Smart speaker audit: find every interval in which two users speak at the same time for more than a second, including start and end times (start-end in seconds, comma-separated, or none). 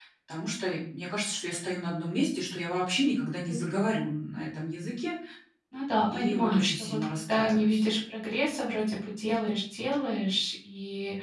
6.0-7.8